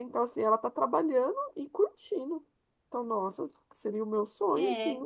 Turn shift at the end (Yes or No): Yes